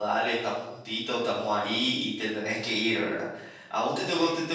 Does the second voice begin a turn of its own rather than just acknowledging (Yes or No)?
No